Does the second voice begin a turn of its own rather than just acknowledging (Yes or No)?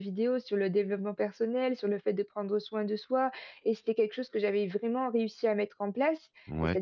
No